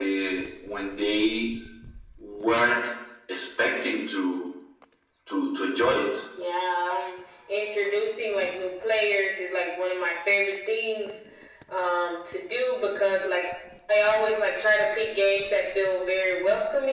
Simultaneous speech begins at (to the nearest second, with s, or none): none